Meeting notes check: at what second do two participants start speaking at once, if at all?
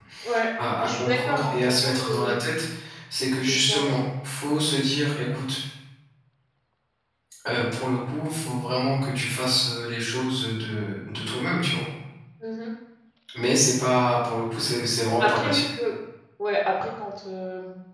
1 s

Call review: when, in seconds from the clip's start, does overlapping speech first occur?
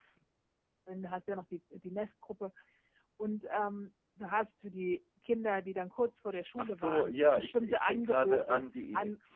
7 s

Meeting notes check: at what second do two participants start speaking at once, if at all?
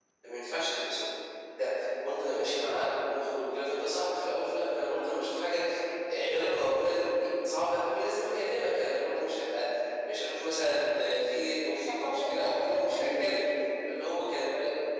12 s

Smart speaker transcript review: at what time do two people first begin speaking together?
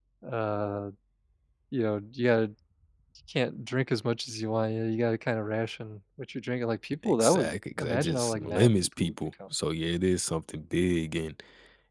7 s

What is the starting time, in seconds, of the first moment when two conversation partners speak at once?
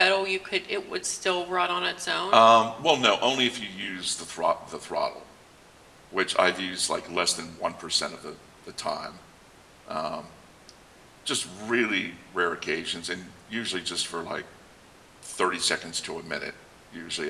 none

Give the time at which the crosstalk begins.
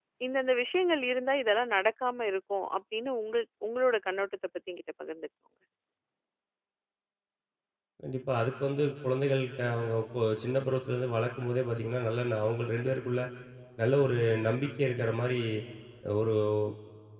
none

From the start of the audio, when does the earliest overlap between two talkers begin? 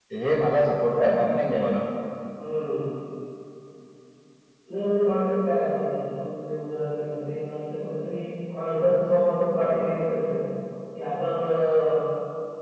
none

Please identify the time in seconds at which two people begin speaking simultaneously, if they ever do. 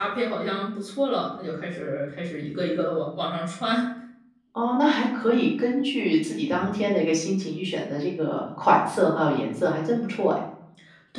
none

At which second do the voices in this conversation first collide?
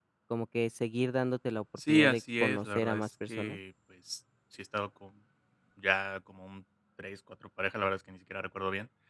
2 s

